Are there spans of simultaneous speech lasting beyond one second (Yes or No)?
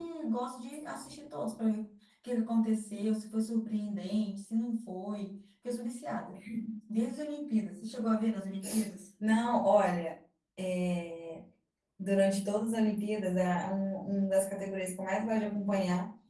No